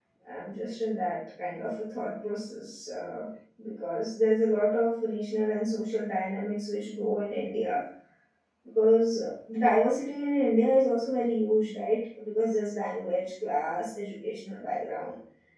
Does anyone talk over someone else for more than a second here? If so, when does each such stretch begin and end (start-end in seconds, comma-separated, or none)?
none